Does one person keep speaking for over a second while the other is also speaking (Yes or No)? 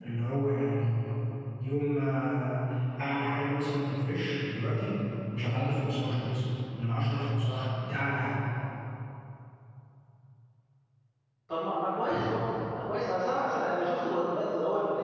No